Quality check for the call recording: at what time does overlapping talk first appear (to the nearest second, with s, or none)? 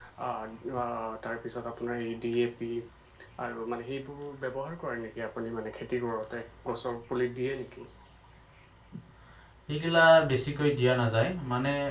none